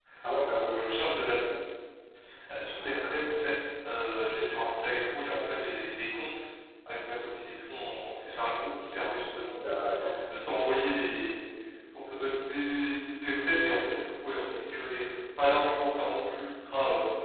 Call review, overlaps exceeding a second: none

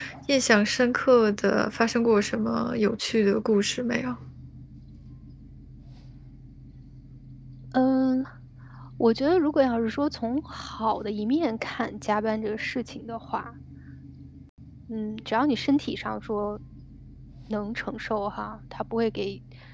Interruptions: none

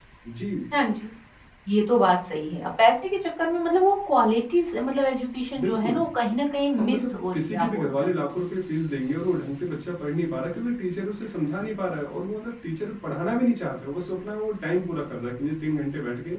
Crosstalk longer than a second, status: present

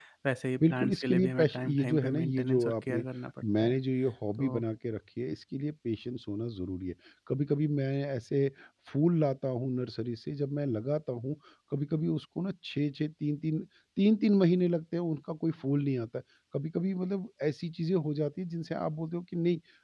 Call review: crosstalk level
present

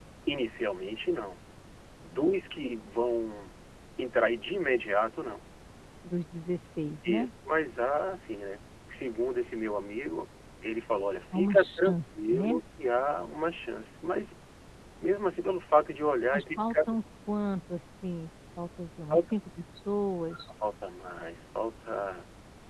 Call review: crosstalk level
present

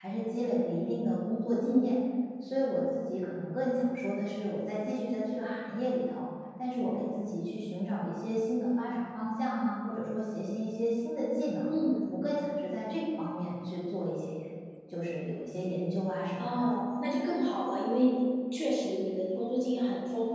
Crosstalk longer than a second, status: none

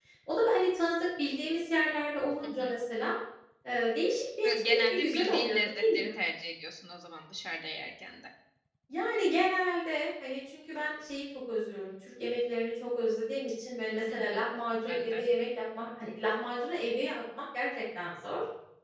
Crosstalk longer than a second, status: present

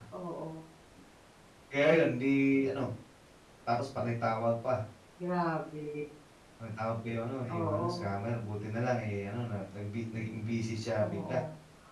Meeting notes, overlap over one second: none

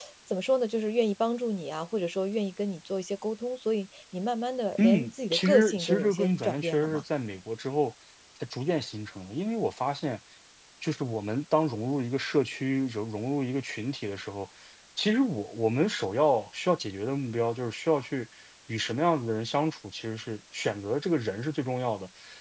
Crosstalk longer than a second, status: present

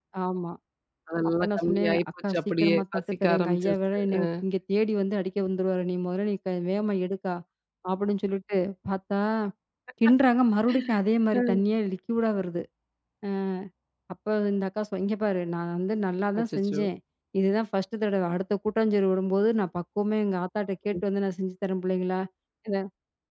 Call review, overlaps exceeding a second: present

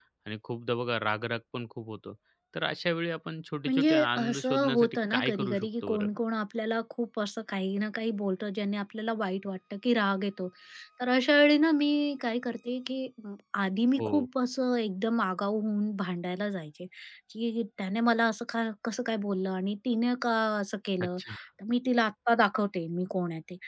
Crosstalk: present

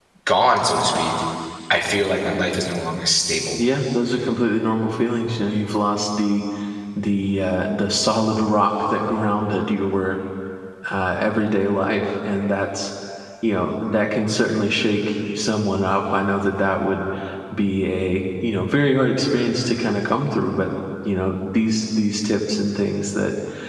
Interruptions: none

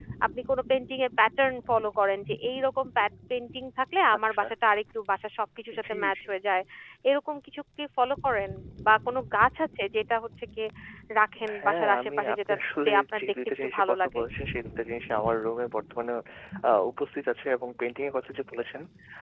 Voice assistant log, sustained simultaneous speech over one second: present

